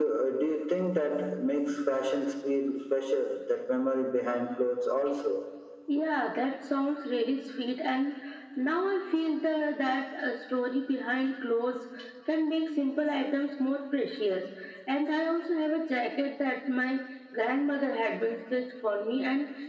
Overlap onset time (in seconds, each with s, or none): none